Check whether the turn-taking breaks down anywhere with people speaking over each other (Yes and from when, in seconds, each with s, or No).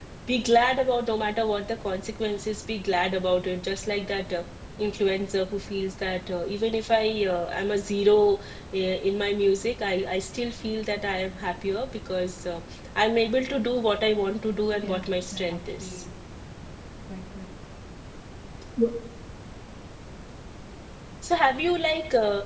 Yes, from 14.8 s